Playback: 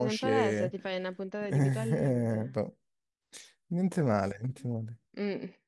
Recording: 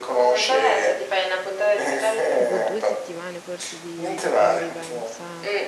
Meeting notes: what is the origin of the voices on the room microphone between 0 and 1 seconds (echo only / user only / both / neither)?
echo only